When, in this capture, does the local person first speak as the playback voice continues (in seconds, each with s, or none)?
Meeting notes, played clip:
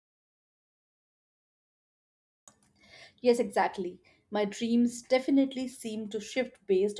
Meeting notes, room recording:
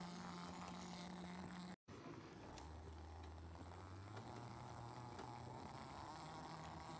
none